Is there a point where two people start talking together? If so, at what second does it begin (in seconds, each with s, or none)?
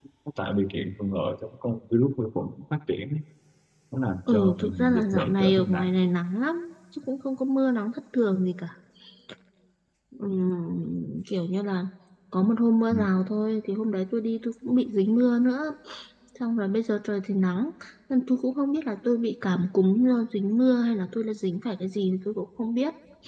4.3 s